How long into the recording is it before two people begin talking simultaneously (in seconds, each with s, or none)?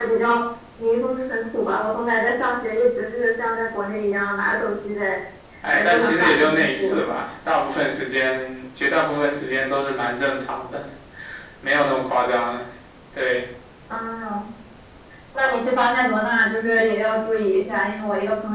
5.7 s